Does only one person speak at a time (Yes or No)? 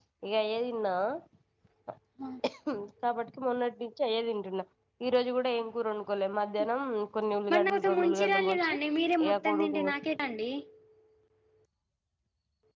No